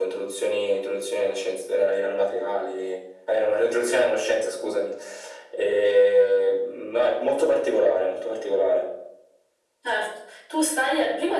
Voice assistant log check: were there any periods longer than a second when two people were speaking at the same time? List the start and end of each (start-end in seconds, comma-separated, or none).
none